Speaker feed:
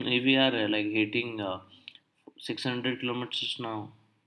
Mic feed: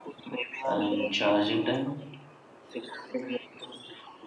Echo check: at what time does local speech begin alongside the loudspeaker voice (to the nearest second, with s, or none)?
1 s